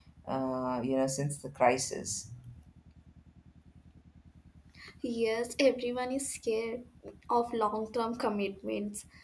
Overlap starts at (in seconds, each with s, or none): none